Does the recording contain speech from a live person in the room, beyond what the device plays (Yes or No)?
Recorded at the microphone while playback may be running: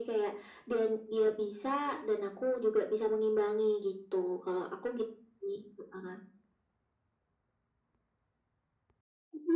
No